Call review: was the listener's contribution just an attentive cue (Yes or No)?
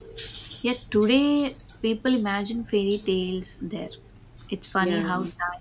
Yes